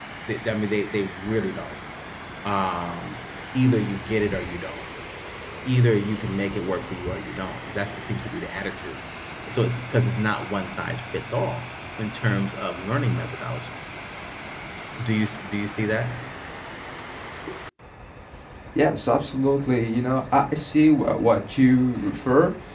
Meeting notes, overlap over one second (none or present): none